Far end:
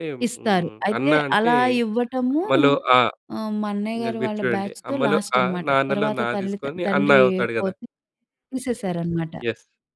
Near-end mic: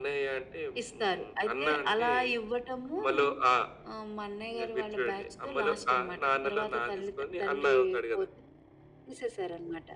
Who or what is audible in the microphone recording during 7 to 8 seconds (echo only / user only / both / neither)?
echo only